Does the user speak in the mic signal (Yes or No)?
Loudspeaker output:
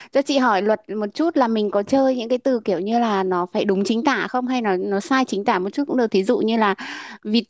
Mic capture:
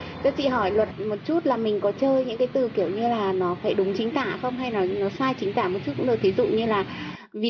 No